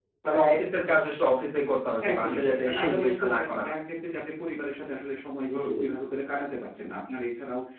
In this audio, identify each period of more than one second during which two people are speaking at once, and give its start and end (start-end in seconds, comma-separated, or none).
2.1-3.8